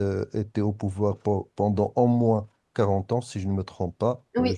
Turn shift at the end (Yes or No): Yes